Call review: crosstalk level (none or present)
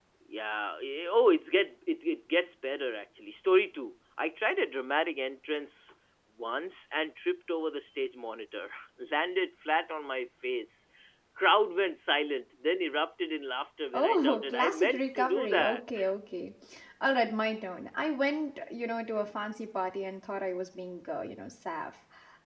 present